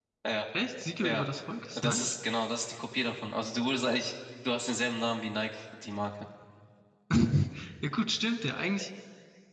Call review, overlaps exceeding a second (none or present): none